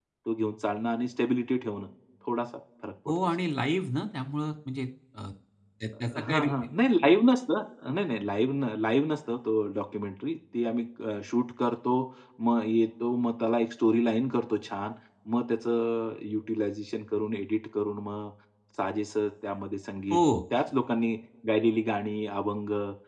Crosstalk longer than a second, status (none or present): none